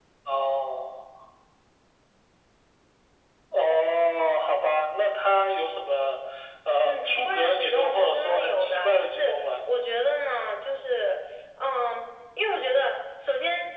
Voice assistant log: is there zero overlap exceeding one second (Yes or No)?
No